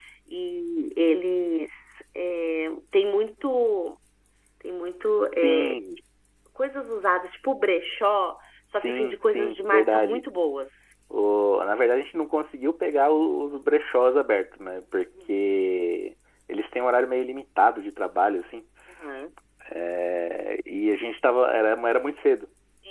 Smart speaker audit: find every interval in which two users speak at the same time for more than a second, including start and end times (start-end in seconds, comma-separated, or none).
8.7-10.2